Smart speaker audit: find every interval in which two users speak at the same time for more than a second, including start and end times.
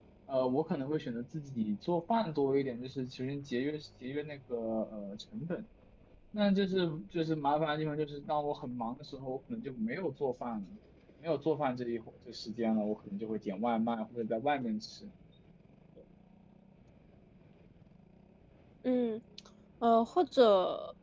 none

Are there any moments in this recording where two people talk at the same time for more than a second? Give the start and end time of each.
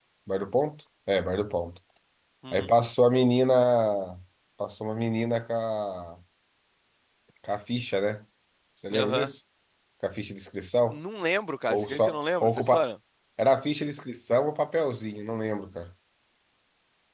11.7-12.9

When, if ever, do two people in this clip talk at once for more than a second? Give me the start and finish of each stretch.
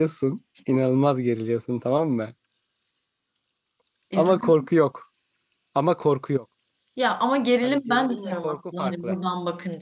7.6-9.2

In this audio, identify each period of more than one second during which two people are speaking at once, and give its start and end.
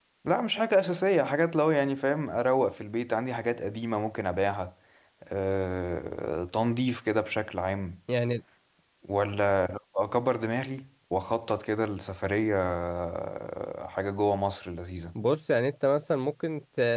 none

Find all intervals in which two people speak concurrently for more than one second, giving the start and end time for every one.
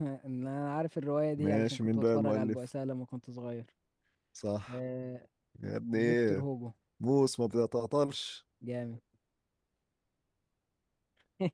1.4-2.6

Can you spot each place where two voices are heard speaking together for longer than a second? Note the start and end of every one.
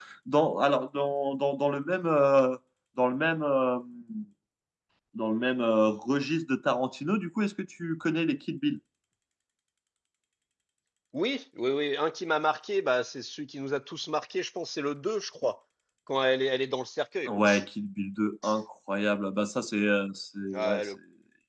none

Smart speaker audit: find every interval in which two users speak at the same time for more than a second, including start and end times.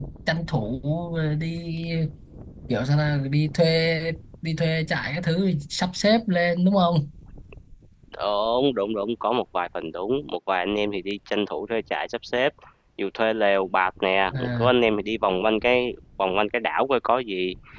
none

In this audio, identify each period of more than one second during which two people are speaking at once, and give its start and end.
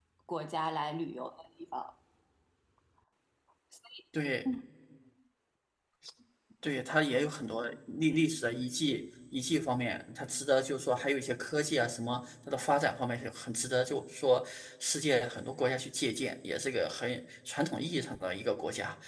none

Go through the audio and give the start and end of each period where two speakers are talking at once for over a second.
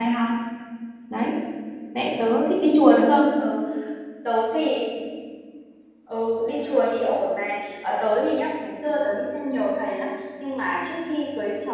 none

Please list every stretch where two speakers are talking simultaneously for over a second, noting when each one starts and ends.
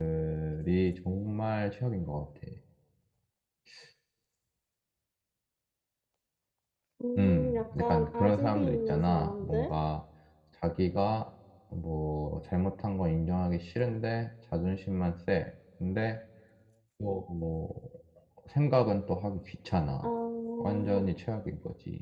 7.2-9.7

